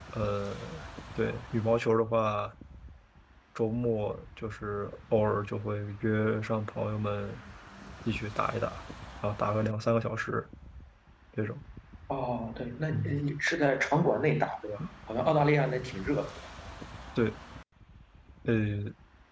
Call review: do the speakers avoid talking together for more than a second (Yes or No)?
Yes